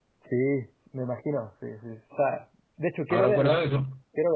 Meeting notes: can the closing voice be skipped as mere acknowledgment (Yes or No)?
No